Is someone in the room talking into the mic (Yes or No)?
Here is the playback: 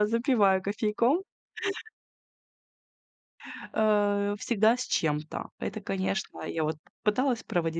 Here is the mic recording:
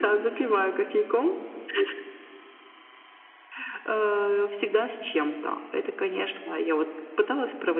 No